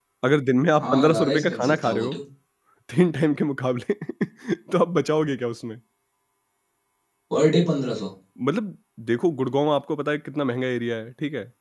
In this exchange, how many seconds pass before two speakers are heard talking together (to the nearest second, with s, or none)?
1 s